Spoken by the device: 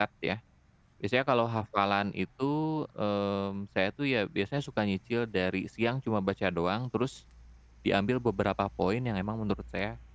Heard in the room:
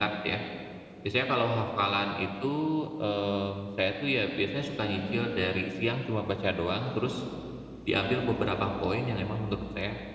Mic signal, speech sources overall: echo only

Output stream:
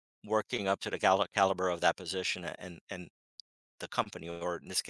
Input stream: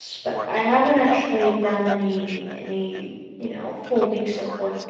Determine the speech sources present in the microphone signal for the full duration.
both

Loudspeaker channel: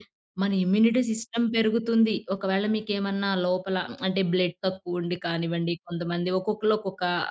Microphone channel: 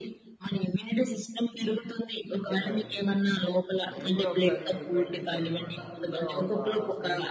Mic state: both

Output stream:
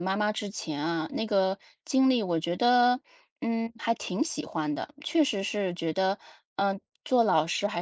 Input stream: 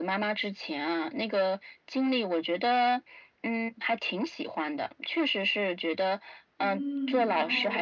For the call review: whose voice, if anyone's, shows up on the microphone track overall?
both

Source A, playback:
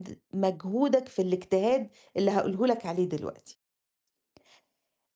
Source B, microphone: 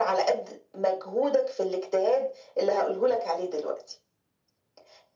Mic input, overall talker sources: echo only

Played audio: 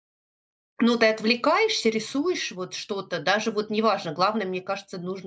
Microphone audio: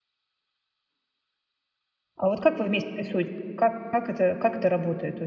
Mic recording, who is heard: user only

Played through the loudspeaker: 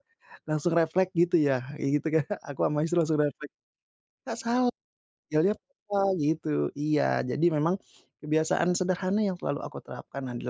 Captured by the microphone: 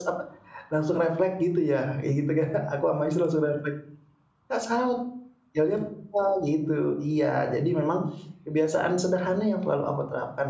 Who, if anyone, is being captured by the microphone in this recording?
echo only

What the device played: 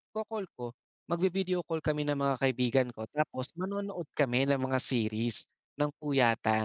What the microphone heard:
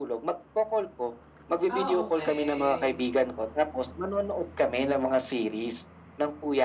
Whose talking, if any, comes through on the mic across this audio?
both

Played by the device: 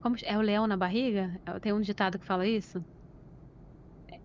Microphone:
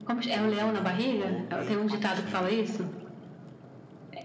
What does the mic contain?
both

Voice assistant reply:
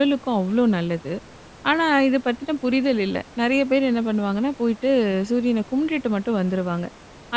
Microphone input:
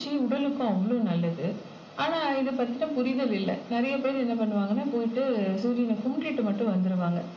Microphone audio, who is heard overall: echo only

